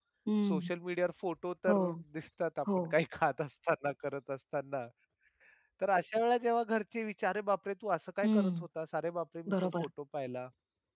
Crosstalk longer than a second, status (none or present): none